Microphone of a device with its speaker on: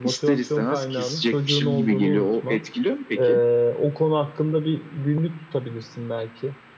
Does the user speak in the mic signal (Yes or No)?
Yes